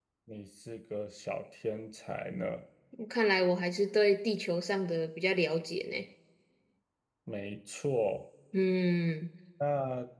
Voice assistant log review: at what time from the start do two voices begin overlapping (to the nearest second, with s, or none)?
none